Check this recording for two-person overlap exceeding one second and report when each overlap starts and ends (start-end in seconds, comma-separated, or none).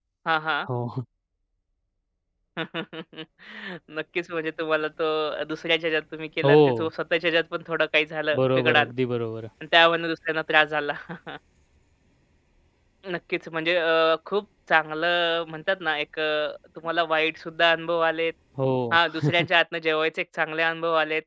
none